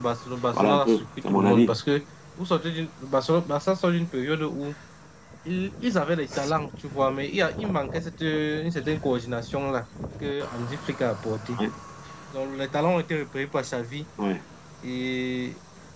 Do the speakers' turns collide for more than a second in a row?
Yes, from 0.5 s

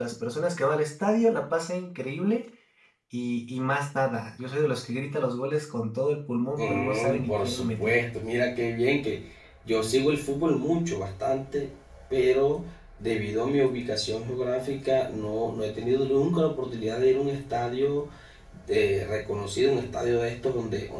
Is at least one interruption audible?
Yes, from 6.6 s

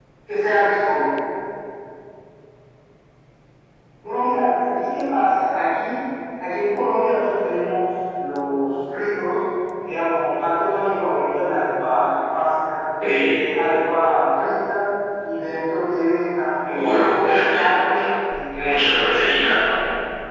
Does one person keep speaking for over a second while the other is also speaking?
Yes, from 16.7 s

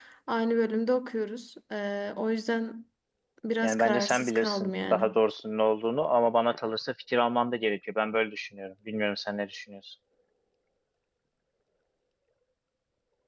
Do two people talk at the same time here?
Yes, from 3.6 s

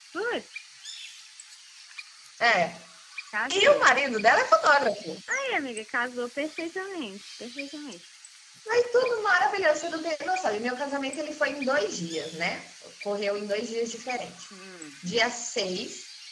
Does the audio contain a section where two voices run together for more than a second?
No

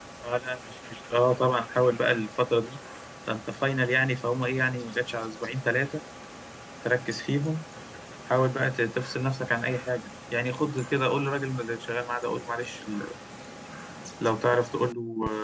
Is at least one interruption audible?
No

